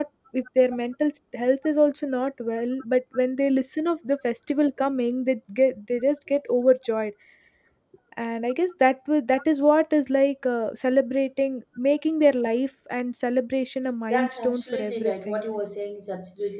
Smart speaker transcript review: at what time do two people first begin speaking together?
14.1 s

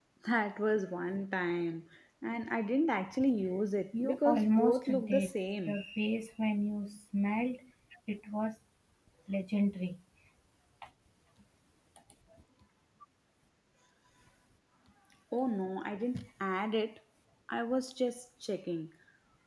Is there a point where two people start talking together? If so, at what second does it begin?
3.9 s

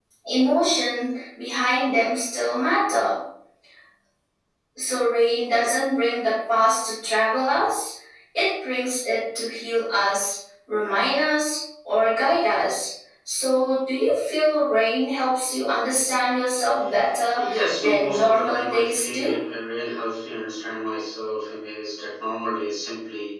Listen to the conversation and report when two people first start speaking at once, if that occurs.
17.4 s

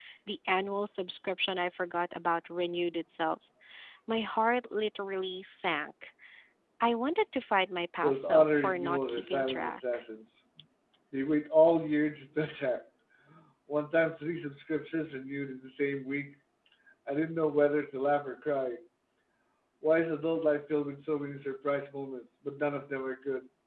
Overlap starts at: 8.0 s

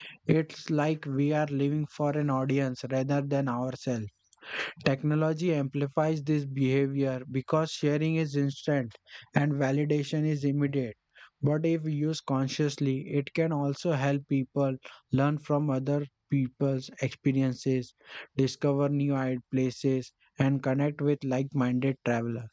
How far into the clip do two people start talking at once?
none

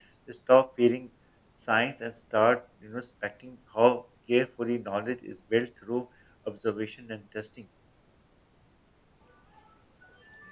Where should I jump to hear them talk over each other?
none

